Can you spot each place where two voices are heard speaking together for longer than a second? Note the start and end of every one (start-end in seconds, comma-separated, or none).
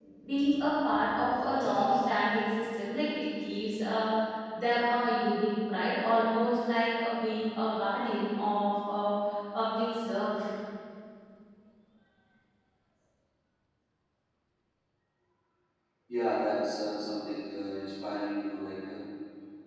none